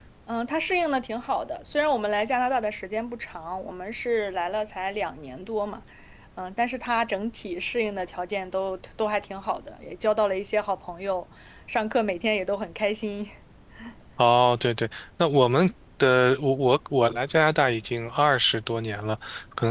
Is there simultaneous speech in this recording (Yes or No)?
No